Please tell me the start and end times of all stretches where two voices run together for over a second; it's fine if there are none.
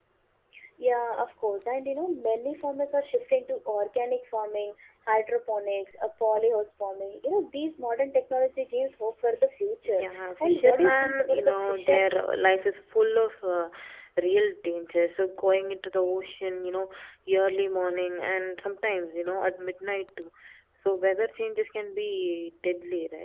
10.0-12.3

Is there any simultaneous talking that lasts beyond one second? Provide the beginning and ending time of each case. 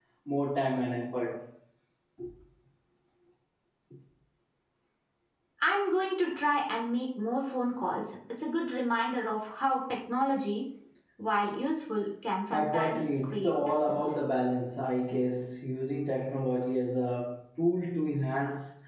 12.5-14.1

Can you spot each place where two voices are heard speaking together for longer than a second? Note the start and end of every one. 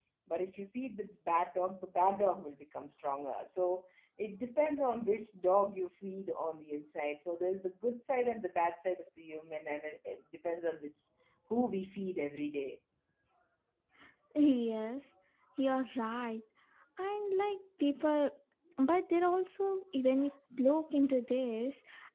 none

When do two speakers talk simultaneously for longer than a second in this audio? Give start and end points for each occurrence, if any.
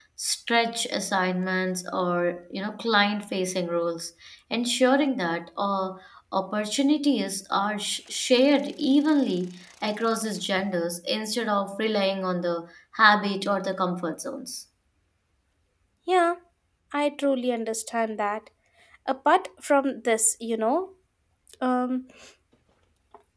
none

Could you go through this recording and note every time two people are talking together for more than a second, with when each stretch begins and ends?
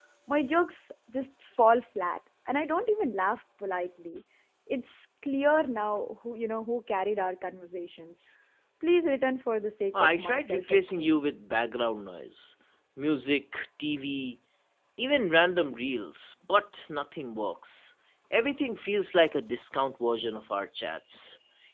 9.9-11.2

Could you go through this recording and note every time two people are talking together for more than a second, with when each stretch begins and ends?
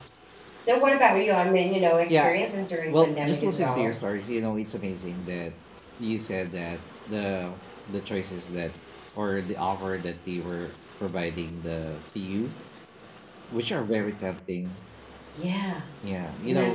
2.1-3.9

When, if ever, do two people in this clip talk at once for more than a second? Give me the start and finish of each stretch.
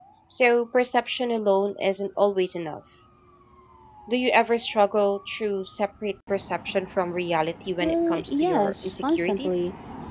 7.8-9.6

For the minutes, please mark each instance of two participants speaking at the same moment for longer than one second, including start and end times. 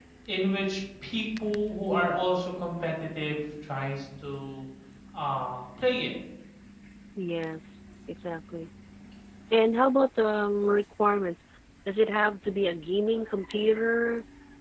none

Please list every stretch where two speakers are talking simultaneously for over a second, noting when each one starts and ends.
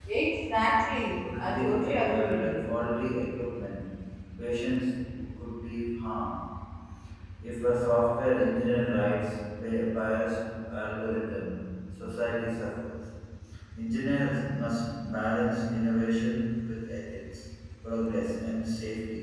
1.4-2.7

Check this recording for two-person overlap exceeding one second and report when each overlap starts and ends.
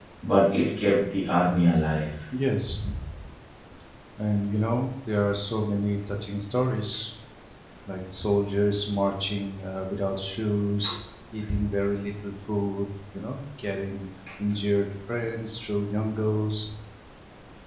none

